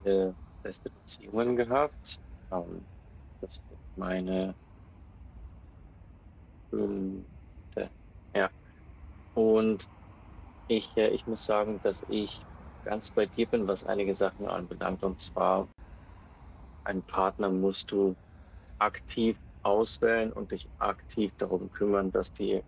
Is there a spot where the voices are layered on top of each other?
No

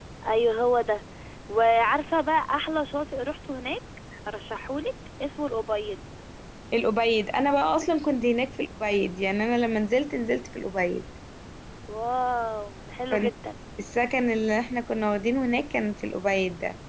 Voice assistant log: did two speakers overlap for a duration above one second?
No

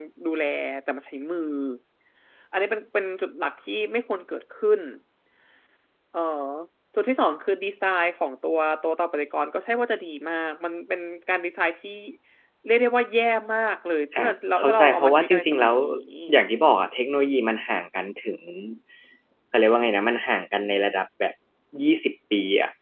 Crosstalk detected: Yes, from 14.1 s

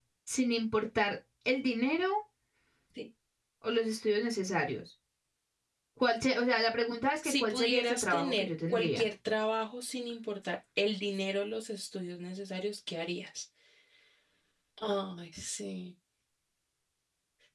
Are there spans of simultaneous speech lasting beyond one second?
Yes, from 7.2 s

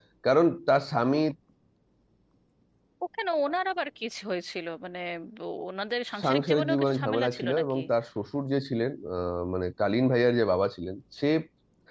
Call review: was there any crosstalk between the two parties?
Yes, from 6.2 s

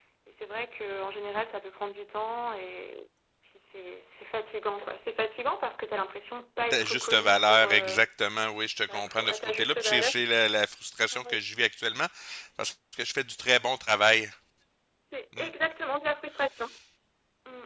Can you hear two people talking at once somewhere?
Yes, from 6.7 s

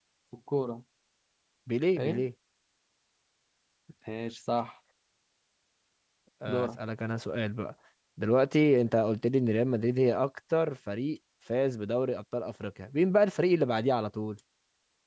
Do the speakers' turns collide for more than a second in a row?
No

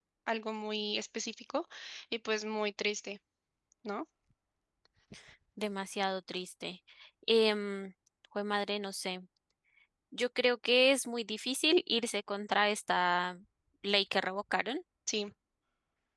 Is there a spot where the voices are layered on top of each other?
No

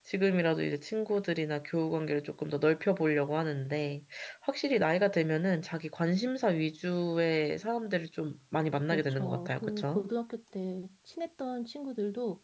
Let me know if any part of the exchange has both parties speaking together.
Yes, from 8.8 s

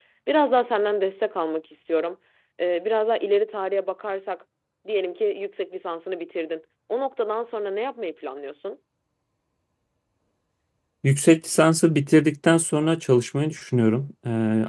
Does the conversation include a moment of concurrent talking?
No

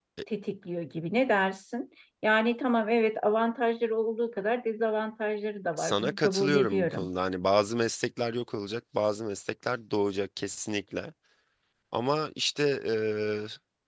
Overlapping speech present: Yes, from 5.8 s

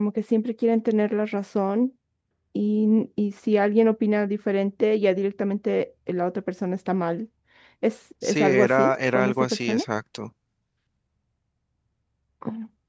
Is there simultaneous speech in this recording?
Yes, from 8.2 s

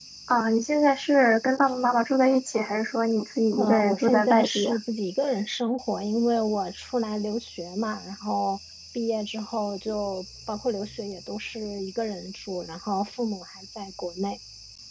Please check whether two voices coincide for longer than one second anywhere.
Yes, from 3.6 s

